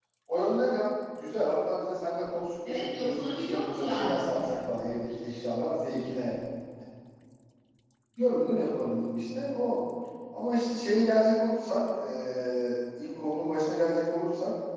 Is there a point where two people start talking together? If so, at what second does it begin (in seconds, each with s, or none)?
2.6 s